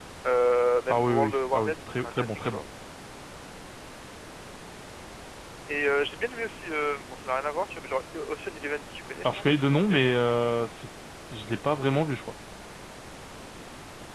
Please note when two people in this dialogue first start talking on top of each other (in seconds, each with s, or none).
0.9 s